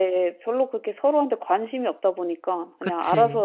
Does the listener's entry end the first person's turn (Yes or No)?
No